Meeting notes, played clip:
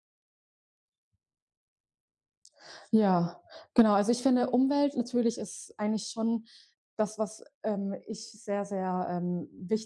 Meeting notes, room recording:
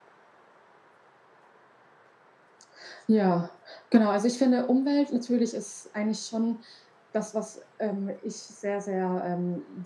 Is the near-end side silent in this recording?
Yes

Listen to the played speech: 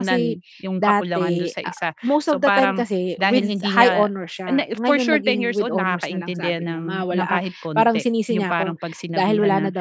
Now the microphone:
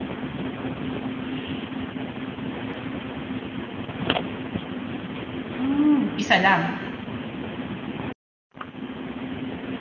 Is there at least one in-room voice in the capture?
Yes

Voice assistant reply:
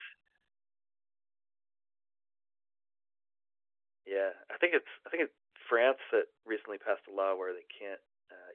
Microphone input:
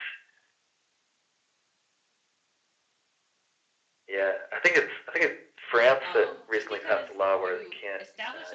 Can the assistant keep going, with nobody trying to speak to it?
No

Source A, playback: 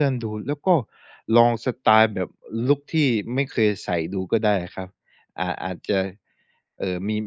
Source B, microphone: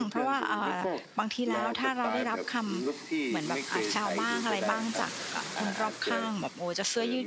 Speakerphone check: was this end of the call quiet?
No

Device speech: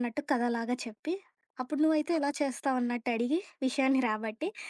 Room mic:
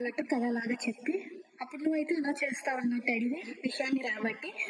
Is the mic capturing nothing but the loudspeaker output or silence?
Yes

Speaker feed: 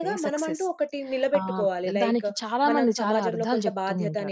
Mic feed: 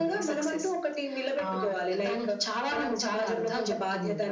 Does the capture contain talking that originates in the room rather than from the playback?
No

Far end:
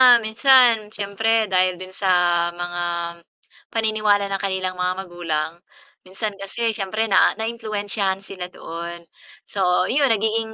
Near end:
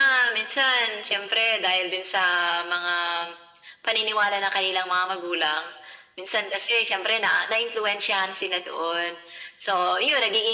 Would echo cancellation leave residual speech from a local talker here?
No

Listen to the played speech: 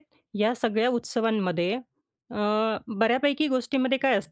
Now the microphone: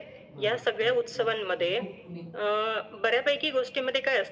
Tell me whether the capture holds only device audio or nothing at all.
No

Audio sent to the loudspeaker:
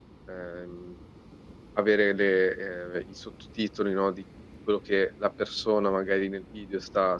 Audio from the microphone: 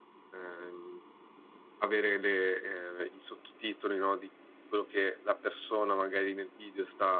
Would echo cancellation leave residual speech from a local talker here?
No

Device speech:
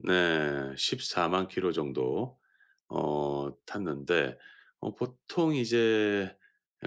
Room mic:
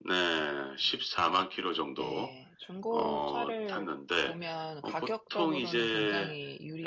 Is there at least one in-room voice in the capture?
Yes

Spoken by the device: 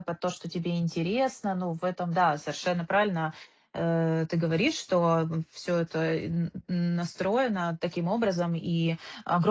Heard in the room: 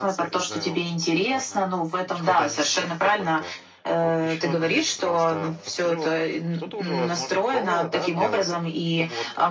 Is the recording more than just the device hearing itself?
Yes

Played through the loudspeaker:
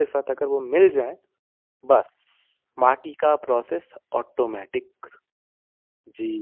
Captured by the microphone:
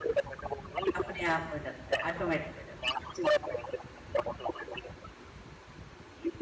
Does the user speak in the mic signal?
Yes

